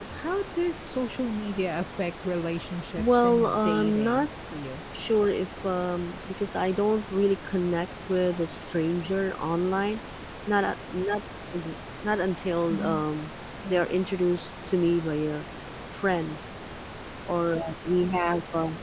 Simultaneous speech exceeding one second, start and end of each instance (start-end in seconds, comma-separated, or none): 3.0-4.3